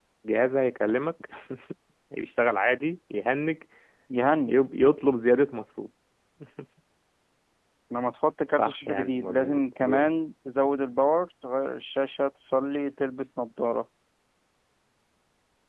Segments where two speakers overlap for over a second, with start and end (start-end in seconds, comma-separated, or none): 8.6-10.1